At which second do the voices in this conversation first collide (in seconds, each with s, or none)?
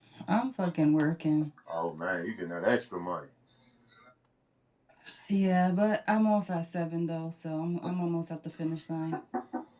none